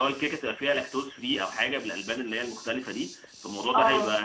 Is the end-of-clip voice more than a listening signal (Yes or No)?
No